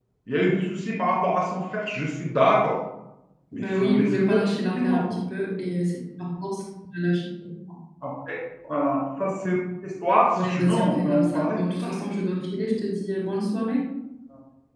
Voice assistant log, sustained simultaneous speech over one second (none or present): present